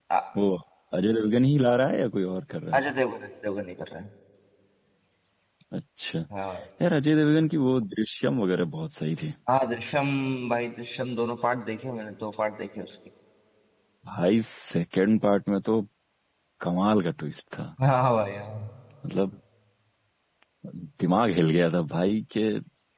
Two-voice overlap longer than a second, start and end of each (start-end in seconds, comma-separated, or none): none